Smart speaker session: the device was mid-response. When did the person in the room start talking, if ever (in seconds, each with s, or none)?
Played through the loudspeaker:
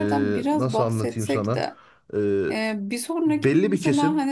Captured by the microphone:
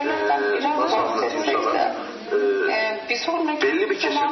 0.6 s